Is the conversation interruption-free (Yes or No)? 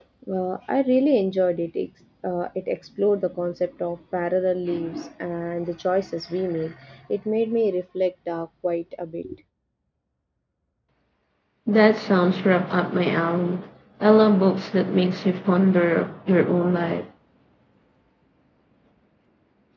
Yes